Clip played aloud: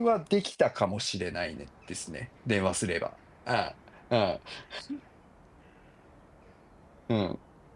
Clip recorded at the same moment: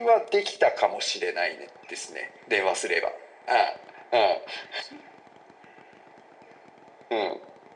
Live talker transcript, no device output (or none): none